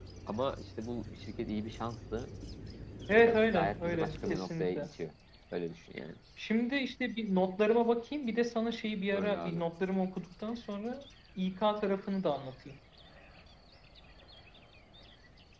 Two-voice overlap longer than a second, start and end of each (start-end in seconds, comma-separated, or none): 3.1-4.9